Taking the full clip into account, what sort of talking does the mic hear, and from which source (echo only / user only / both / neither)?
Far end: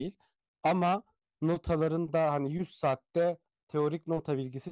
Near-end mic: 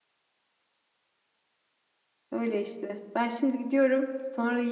user only